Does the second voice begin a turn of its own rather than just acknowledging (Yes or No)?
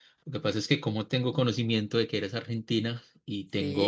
No